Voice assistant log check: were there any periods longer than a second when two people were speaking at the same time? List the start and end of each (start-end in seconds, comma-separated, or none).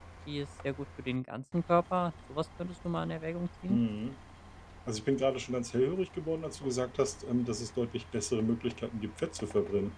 none